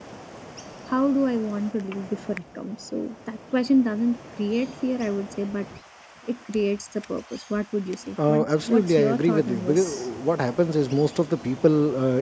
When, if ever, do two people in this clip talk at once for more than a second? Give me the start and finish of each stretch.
8.3-10.1

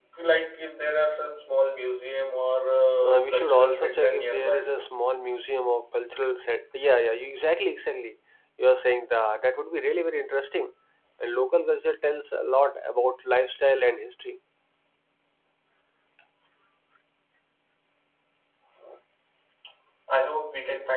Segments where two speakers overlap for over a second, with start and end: 3.0-4.8

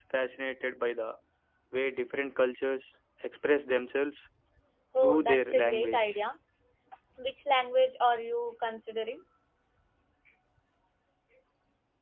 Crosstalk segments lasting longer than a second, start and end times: 5.0-6.2

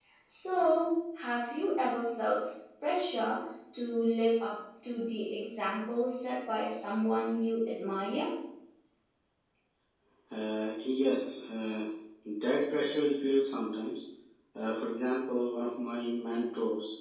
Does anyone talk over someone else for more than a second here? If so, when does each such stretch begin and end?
none

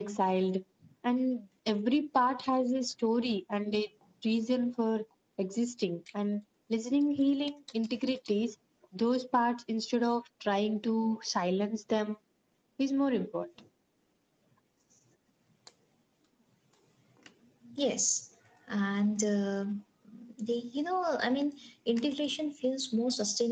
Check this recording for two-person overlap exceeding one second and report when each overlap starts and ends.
none

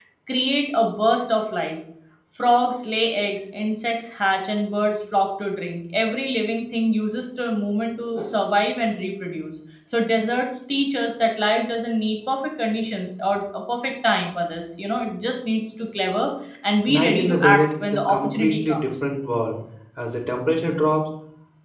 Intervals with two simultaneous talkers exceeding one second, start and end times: 16.9-19.1

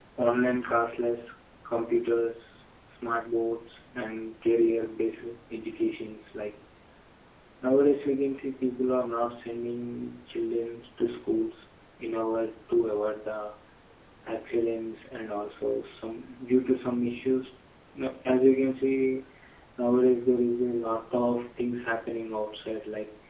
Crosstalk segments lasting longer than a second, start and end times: none

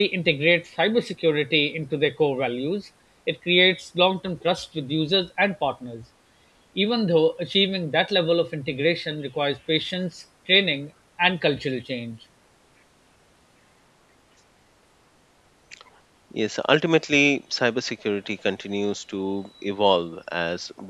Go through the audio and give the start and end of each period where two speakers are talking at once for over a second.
none

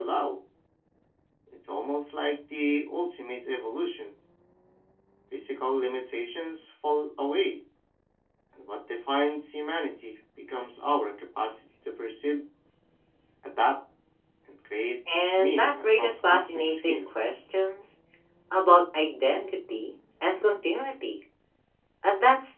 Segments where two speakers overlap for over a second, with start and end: 15.3-17.3

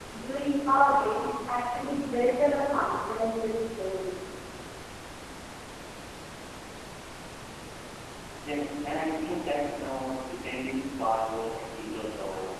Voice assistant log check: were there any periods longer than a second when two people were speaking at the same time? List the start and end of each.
none

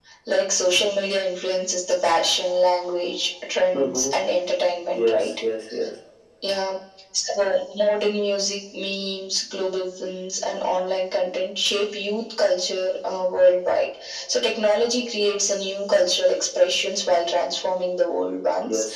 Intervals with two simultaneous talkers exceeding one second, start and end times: none

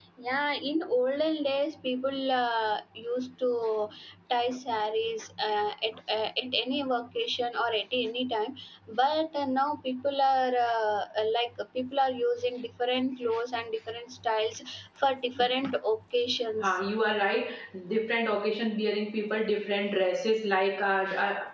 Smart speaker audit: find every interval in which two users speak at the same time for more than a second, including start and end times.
none

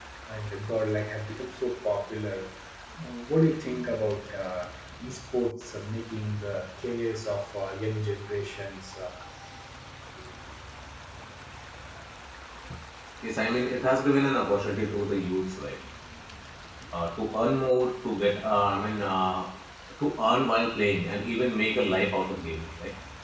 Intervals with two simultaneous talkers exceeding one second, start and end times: none

